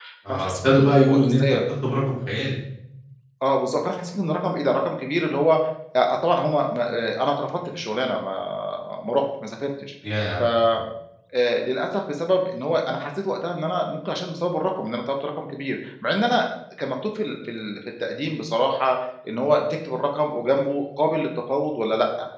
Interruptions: present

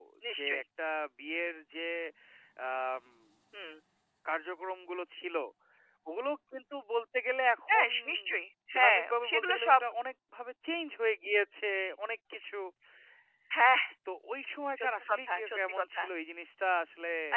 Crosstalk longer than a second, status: present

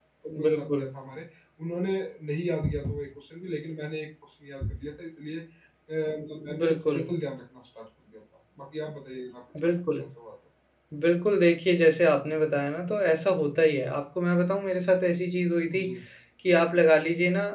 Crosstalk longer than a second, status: none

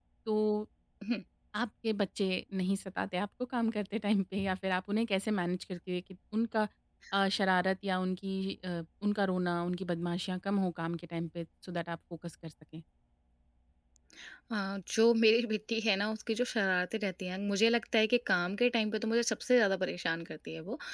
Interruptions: none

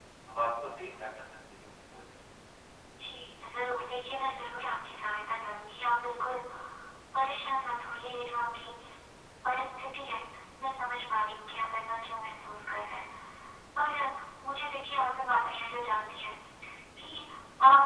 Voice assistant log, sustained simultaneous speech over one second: none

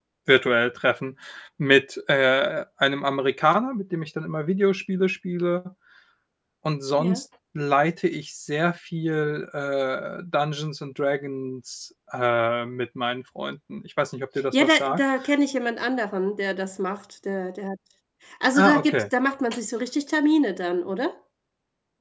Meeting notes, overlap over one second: none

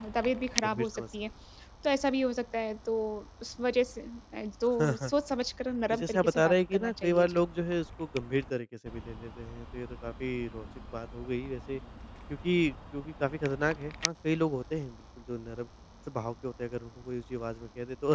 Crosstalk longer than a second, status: present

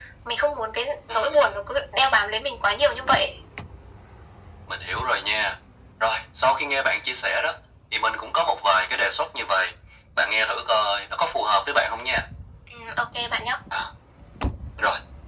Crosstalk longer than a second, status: none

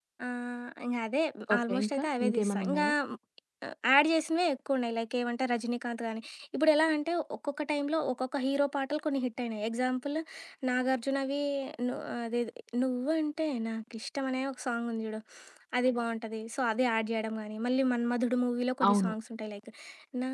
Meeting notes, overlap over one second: present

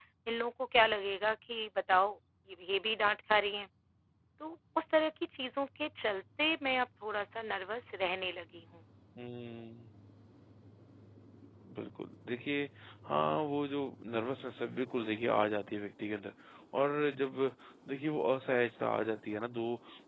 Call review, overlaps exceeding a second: none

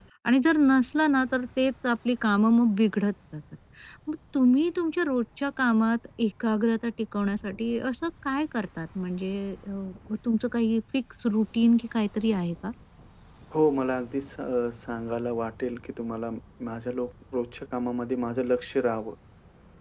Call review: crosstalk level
none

